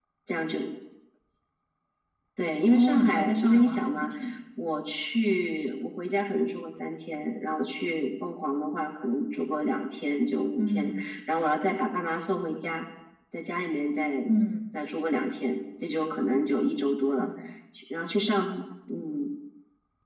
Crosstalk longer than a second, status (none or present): present